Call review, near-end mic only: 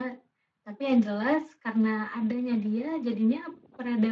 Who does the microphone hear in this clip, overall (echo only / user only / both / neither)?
echo only